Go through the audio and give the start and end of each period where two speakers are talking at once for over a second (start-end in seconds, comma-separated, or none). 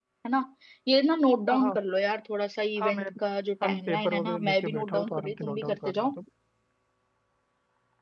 3.6-6.1